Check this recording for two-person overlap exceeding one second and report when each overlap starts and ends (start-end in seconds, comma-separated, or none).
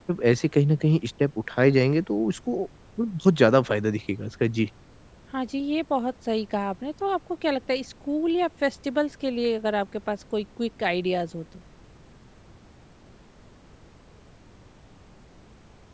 none